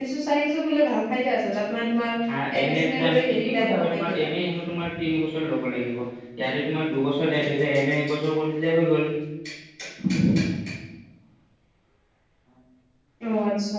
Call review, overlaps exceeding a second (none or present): present